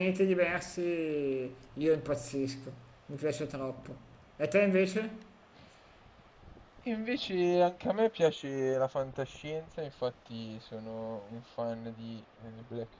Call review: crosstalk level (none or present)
none